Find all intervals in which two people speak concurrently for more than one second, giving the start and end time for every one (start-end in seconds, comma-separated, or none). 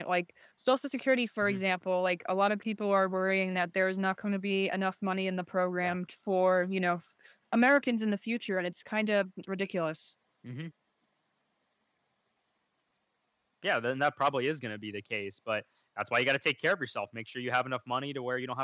none